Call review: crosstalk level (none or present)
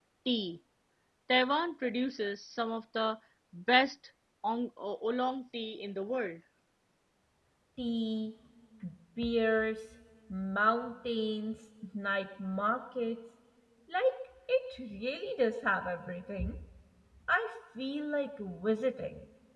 none